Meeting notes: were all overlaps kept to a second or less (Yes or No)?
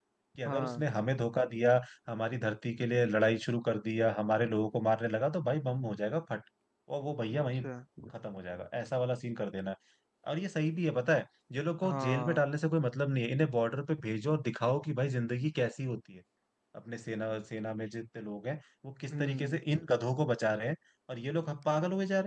Yes